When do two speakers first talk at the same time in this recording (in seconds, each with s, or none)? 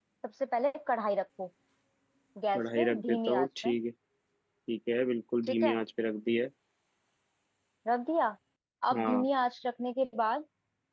2.5 s